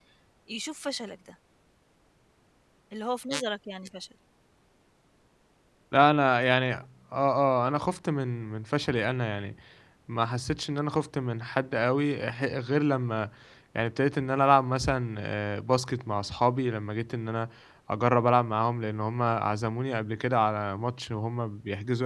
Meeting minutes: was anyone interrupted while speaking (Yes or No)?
No